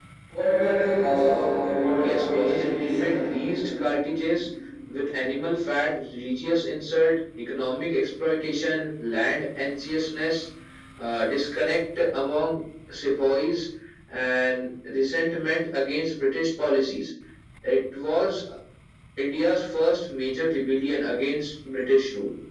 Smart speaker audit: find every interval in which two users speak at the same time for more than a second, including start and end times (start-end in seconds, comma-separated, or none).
2.0-3.2